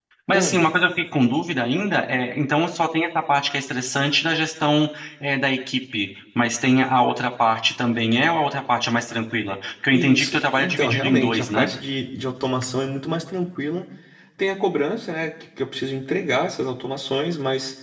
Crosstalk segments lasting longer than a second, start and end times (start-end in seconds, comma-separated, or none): 9.9-11.7